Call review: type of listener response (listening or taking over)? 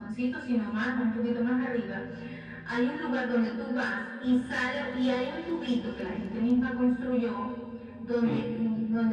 listening